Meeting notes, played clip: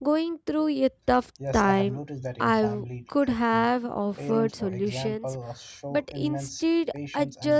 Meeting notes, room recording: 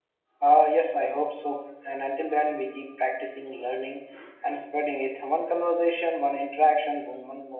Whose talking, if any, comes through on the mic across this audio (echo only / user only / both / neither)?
user only